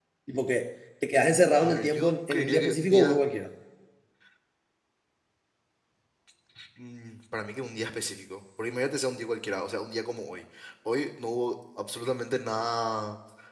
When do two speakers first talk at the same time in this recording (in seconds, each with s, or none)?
1.6 s